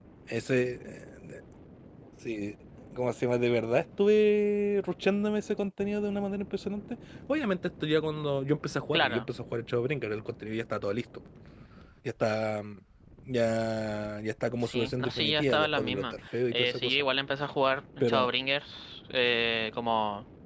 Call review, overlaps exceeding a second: present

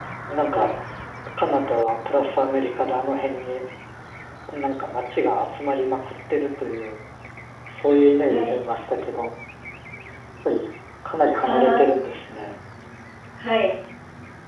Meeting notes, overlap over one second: none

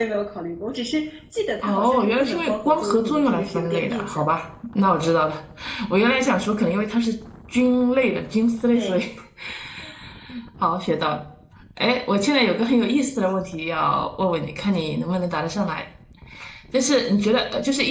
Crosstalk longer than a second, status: present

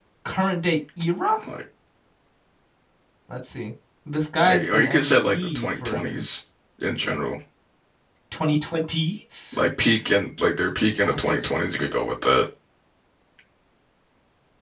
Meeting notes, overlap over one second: present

